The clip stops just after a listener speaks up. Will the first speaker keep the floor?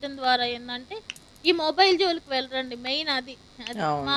No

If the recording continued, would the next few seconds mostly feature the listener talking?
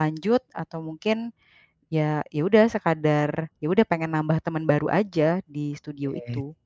Yes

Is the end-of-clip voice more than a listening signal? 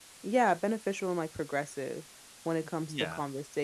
No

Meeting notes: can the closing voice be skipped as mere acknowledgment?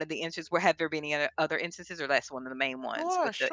No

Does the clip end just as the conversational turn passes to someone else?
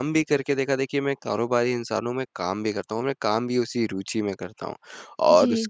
No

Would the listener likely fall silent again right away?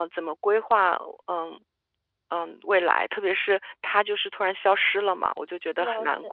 No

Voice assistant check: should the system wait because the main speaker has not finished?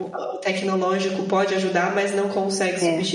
Yes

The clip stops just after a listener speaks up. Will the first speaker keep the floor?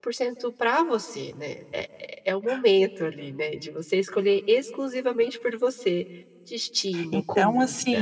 No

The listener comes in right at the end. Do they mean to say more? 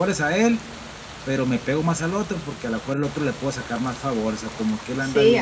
Yes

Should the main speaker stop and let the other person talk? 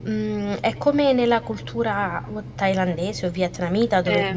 No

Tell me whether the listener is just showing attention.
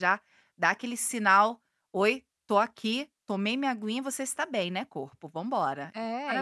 No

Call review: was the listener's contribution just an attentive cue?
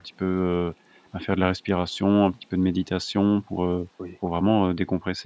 Yes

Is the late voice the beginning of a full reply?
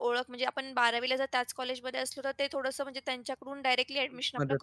Yes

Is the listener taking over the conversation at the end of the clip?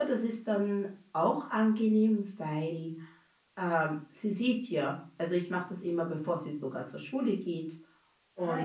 No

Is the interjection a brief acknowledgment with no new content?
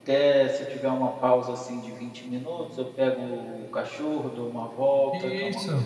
Yes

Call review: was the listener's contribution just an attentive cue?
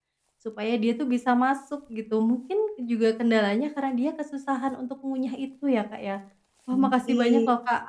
Yes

